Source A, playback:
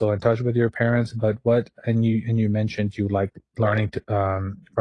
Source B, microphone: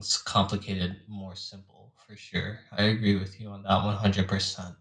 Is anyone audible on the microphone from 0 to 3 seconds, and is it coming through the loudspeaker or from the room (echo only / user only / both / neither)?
user only